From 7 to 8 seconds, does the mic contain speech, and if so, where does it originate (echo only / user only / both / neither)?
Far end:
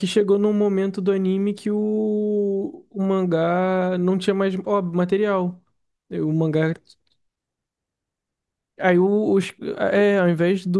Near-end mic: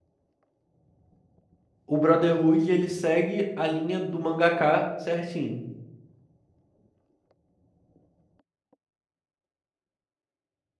neither